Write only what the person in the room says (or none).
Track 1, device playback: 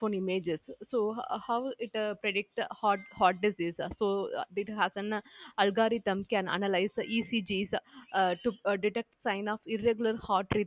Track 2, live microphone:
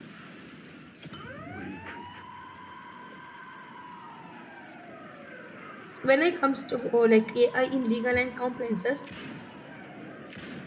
when it comes to uh, like AI in legal and compliances,